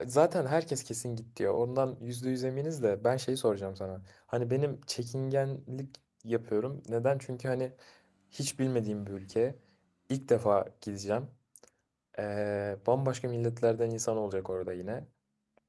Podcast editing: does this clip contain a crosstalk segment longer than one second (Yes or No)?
No